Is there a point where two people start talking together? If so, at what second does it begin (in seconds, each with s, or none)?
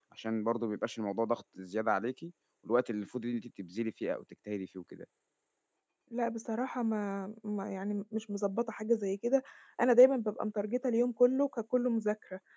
none